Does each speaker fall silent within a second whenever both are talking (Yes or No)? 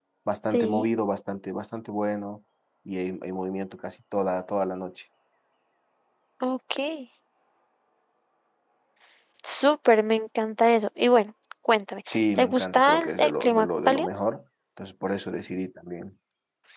No